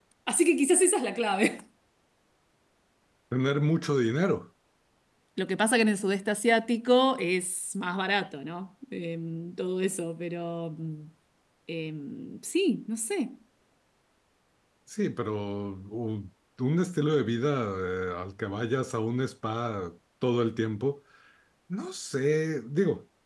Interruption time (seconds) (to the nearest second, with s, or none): none